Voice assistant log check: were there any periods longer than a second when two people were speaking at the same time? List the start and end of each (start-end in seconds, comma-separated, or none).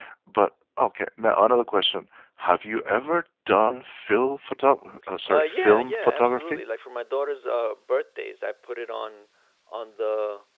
5.3-6.6